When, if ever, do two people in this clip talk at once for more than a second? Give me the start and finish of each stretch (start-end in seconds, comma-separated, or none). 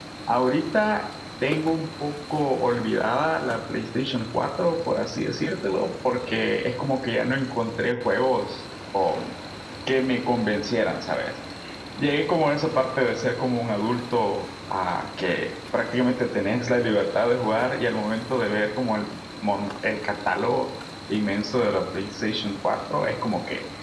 none